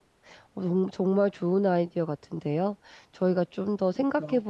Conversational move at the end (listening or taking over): listening